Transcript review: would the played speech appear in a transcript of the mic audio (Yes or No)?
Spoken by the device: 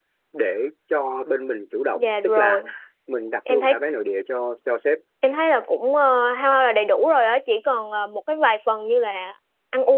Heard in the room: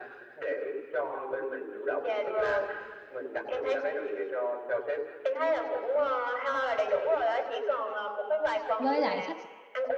Yes